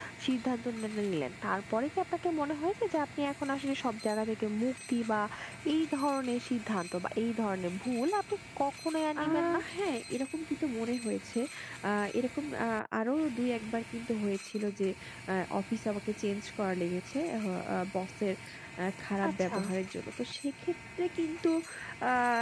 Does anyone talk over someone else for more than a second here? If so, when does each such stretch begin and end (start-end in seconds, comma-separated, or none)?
none